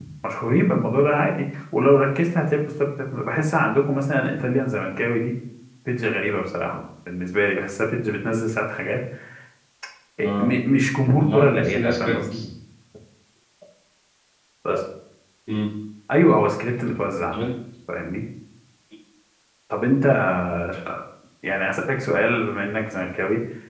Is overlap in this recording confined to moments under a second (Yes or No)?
No